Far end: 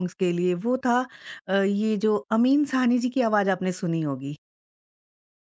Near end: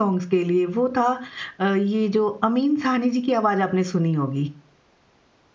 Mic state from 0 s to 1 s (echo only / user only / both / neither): echo only